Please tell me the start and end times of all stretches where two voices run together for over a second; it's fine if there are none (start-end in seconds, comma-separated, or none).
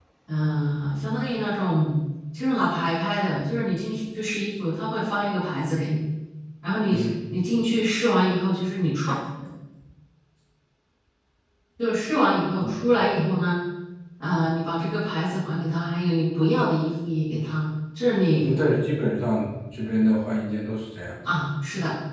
none